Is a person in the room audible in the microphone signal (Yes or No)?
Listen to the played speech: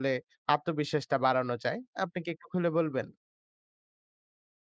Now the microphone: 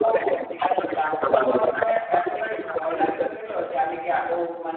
Yes